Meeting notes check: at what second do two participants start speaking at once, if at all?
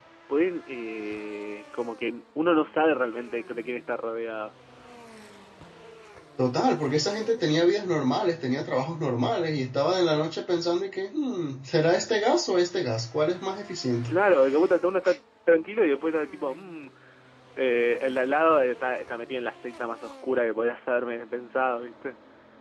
none

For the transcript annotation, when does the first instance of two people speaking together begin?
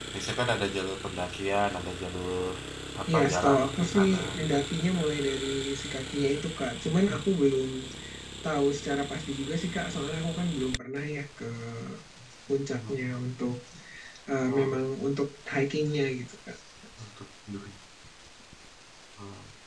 3.1 s

